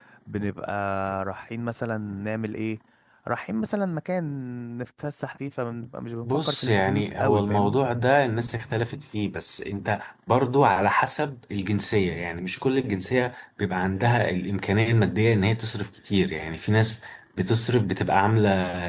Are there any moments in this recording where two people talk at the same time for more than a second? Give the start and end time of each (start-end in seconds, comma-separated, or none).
6.2-7.8